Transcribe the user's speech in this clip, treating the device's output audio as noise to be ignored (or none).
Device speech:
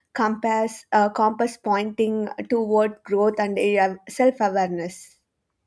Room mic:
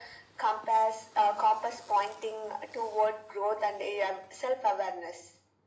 none